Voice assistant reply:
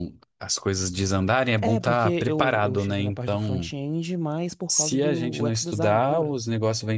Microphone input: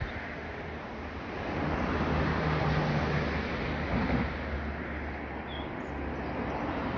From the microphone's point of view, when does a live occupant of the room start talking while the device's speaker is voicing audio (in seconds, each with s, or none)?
none